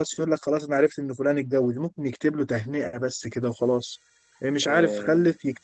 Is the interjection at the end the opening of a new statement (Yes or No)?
No